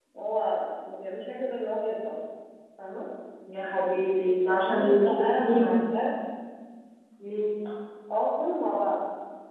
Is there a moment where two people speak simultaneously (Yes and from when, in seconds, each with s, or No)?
Yes, from 4.4 s